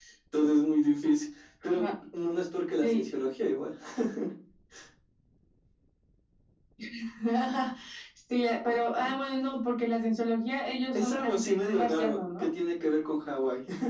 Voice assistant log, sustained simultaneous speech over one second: present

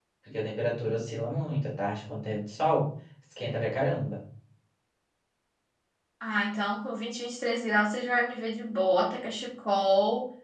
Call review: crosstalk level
none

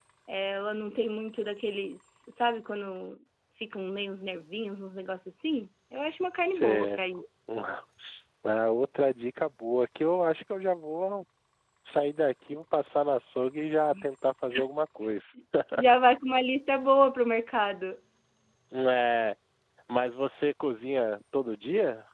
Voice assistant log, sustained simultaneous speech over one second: none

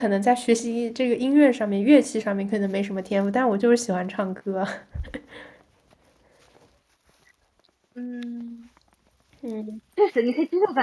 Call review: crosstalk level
none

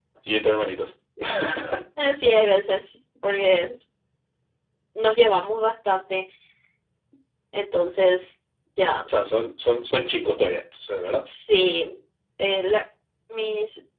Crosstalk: none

